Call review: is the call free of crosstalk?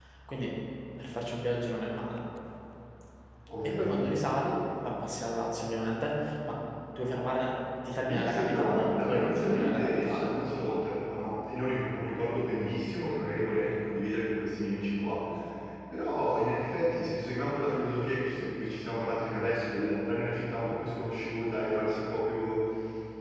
No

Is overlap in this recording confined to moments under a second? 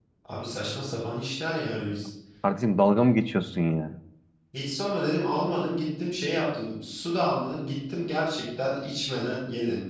Yes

